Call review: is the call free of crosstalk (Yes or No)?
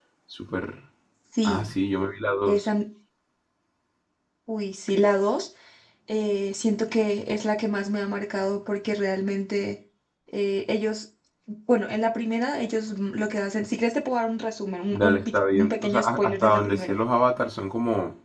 No